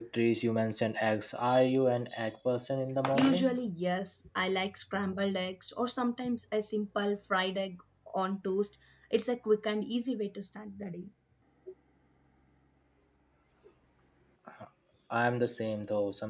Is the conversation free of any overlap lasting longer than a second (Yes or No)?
Yes